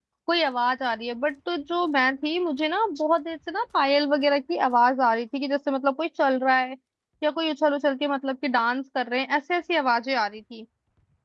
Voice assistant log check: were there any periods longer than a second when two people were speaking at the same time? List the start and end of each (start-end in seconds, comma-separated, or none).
none